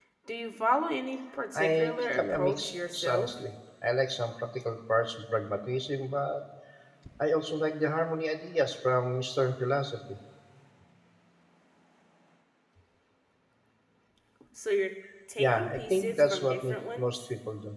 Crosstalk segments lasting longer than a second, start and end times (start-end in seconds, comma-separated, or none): 1.5-3.3, 15.4-17.2